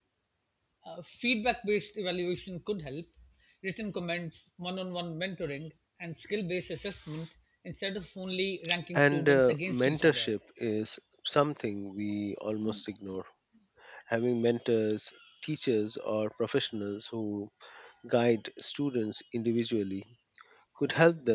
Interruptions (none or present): present